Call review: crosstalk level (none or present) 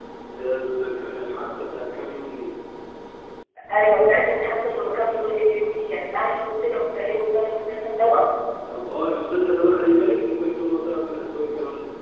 none